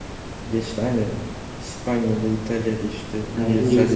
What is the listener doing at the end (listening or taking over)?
listening